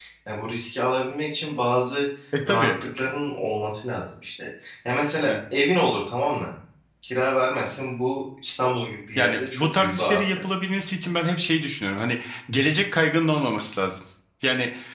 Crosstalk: present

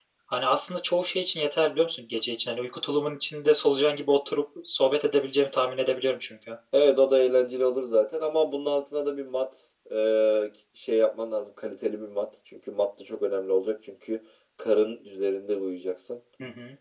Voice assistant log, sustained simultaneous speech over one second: none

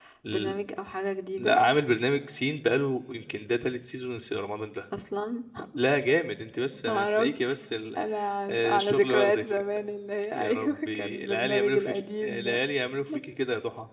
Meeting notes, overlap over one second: present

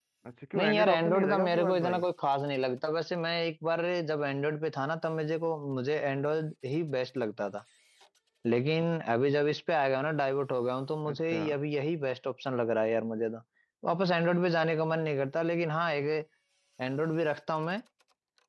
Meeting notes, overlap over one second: present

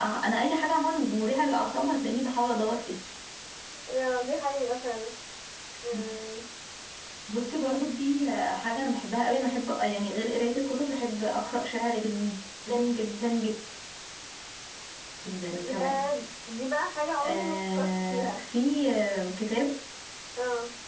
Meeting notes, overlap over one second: present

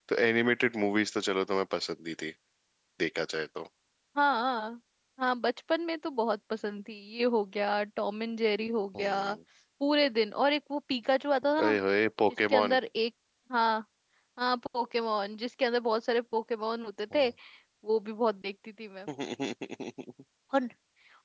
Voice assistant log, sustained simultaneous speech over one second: none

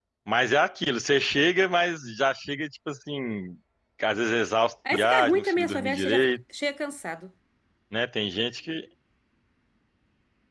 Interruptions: present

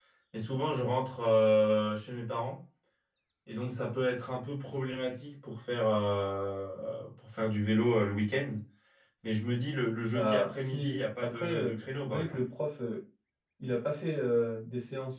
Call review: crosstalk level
present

